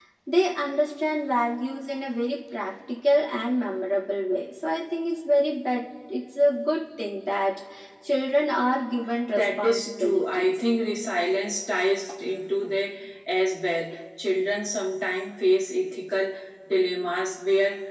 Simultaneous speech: Yes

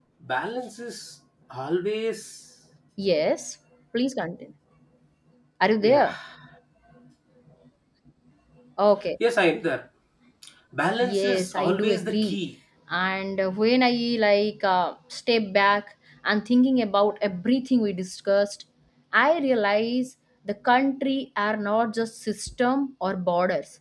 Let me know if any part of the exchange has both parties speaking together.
Yes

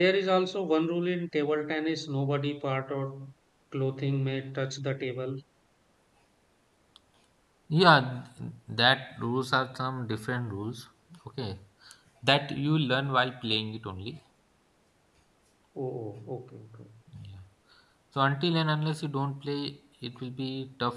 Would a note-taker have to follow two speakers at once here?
No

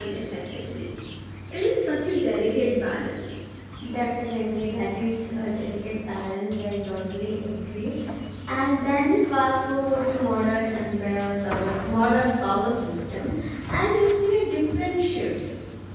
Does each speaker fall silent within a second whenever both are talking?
Yes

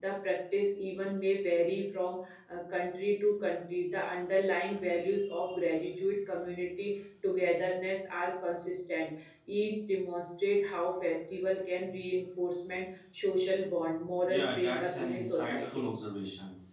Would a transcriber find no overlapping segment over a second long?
No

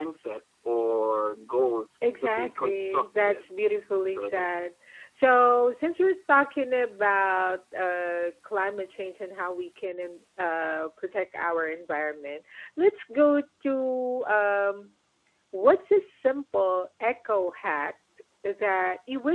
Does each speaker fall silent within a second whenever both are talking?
No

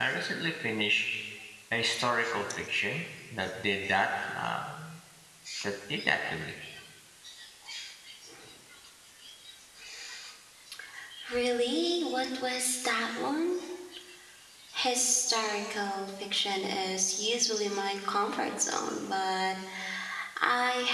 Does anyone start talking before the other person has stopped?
No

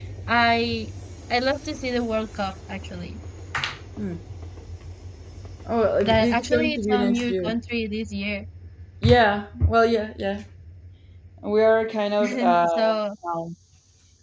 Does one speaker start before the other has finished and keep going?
Yes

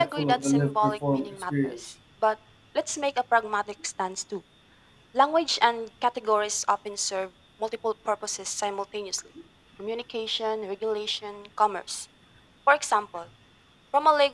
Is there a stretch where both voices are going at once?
Yes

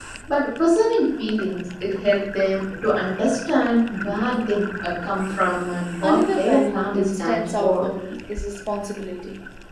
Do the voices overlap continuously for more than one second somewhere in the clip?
Yes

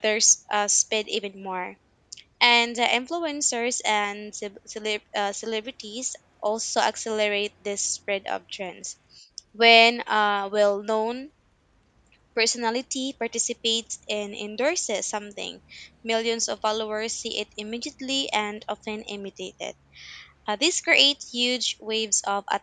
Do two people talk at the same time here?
No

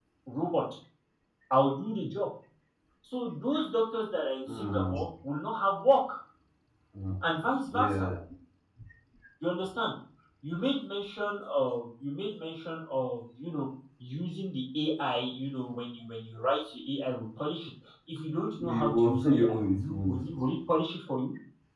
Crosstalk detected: Yes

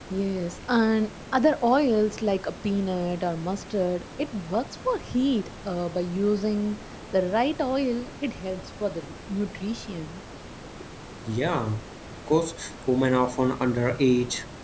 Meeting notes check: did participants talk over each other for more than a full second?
No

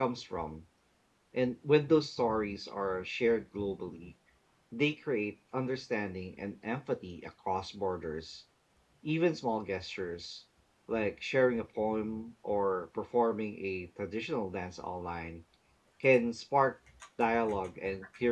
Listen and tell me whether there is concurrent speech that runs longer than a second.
No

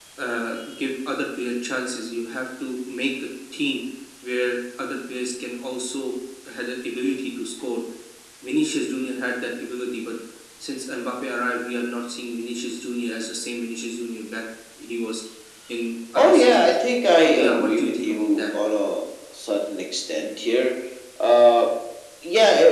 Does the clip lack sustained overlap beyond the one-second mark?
No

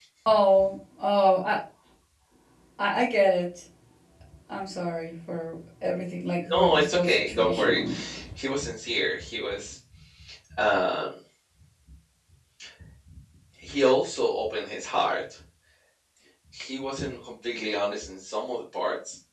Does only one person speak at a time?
No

